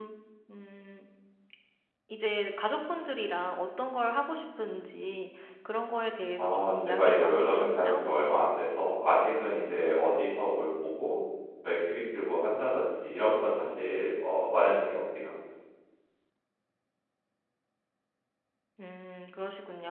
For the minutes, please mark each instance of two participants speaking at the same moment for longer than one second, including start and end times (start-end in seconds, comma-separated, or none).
6.4-8.0